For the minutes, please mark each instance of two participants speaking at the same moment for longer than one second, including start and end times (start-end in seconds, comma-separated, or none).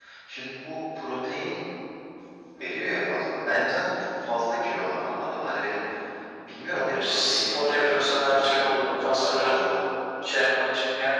6.7-9.5